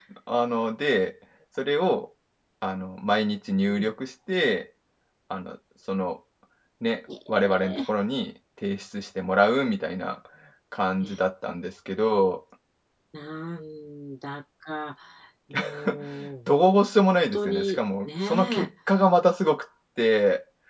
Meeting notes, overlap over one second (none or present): present